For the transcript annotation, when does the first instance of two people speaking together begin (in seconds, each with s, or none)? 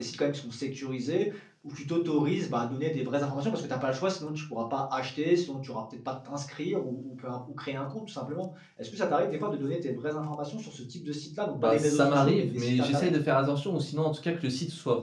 11.6 s